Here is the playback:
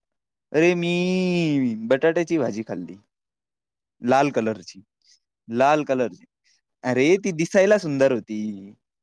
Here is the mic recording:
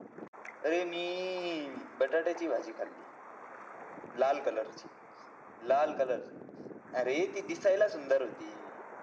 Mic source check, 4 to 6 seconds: echo only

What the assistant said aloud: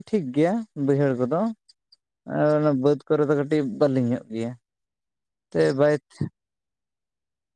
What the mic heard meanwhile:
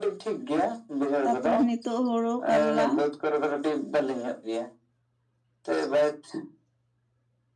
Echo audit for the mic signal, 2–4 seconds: both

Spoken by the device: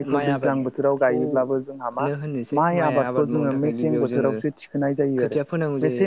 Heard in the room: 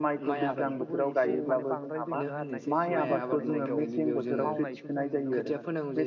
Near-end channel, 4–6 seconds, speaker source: both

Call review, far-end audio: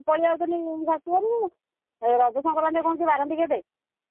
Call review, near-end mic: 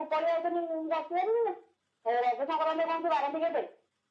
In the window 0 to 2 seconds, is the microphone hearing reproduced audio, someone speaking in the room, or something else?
echo only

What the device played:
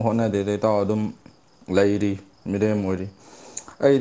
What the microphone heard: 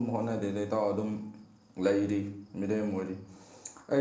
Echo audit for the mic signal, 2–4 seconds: echo only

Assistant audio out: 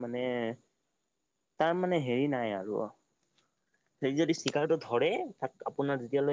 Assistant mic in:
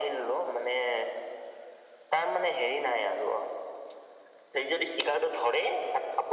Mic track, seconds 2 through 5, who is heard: echo only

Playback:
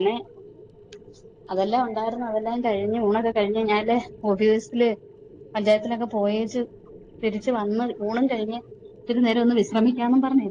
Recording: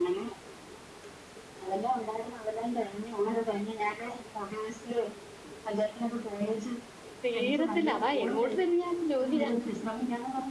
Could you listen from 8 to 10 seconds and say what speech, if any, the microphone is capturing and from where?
both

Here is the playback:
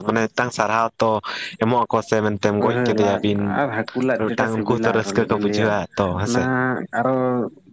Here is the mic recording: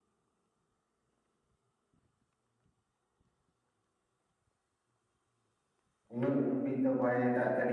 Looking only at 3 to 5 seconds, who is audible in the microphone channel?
neither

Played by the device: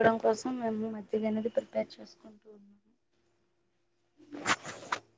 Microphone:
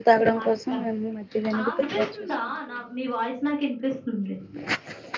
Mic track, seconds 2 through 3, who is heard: both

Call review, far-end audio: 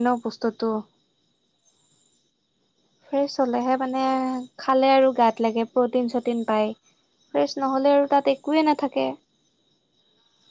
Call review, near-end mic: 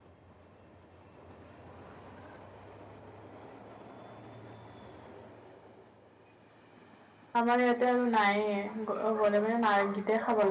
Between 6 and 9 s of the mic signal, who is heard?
user only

